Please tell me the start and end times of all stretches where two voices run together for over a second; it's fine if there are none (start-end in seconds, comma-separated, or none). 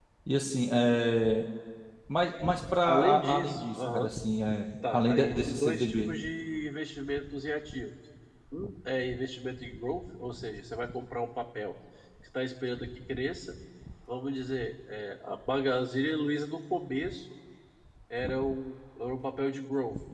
2.9-4.1, 4.9-6.1